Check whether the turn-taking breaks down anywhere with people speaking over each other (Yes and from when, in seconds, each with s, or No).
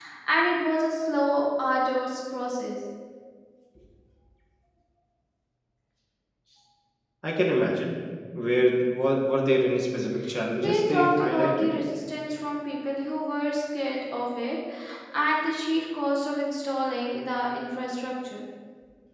Yes, from 10.6 s